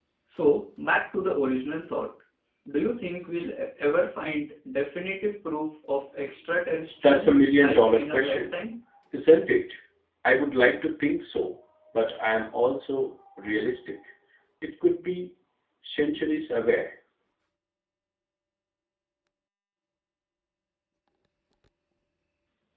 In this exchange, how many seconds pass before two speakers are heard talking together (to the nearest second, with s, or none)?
7 s